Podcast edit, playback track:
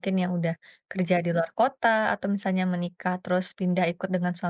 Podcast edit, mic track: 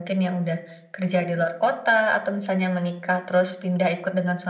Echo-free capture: No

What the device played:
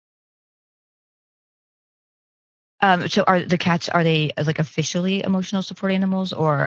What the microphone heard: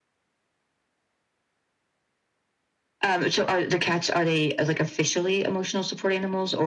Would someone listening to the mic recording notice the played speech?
Yes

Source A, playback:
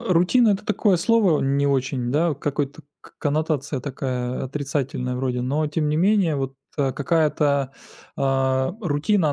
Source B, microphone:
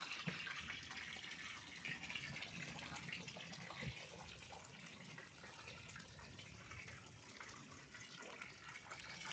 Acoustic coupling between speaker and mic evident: No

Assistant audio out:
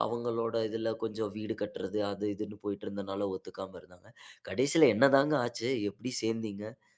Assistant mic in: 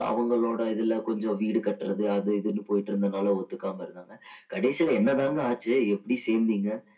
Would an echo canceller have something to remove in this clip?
Yes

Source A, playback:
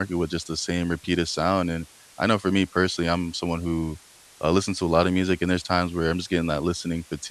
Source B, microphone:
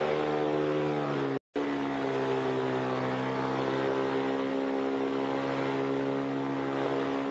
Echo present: No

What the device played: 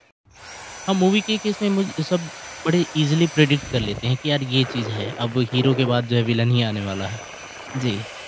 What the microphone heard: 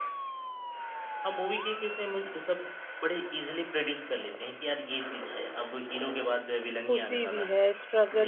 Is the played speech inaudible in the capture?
No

